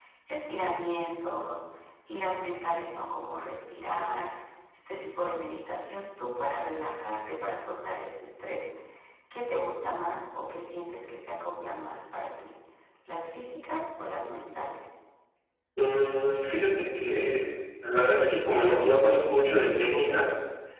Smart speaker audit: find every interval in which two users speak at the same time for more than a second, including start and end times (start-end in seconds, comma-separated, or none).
none